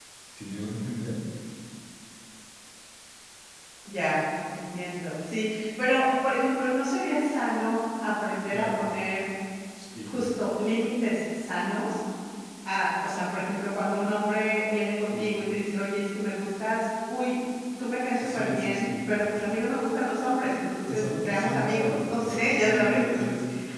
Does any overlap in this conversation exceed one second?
Yes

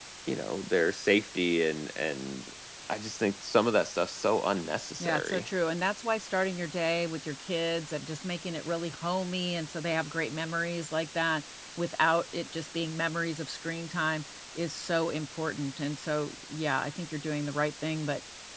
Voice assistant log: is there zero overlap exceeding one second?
Yes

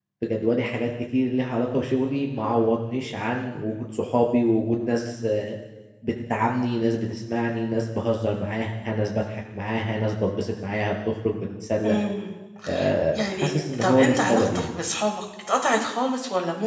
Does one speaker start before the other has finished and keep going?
Yes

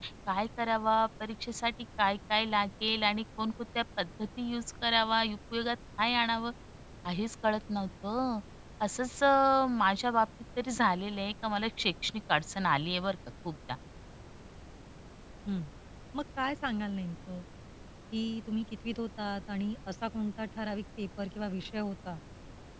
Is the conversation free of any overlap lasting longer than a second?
Yes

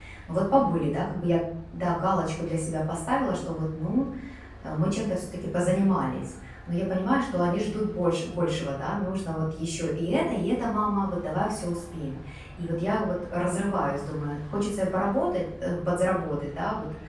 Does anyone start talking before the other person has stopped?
No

